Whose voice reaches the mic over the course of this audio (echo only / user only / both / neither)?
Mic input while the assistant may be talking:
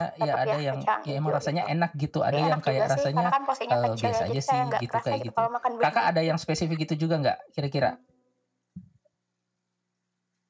both